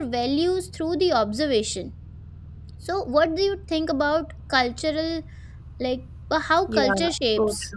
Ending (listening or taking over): taking over